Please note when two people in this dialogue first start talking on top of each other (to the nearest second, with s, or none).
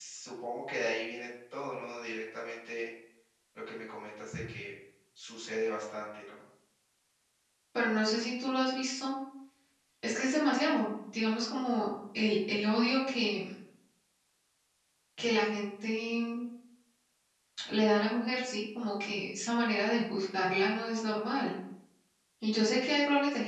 none